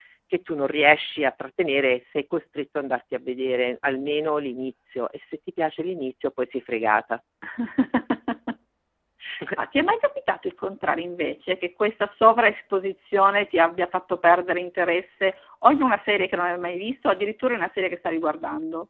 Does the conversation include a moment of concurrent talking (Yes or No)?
No